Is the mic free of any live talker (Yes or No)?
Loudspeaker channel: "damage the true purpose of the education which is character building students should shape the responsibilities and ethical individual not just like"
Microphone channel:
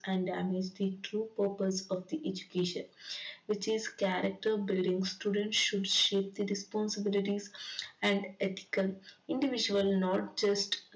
Yes